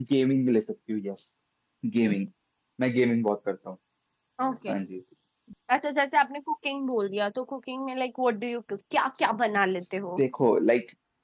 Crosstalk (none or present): none